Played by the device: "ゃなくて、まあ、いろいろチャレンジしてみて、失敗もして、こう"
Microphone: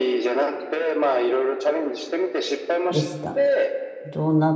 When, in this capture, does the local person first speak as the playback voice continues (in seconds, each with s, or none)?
2.9 s